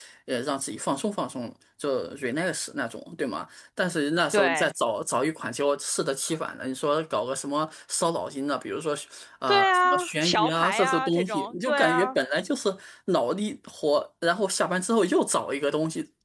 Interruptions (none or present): present